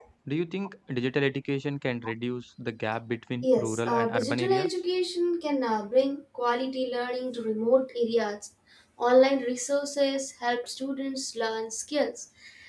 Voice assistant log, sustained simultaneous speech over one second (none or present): present